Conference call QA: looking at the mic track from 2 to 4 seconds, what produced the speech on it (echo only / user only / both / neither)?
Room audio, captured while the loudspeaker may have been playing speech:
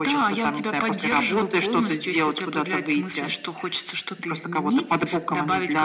echo only